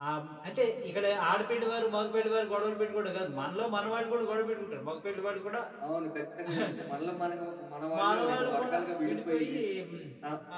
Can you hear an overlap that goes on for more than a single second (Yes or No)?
Yes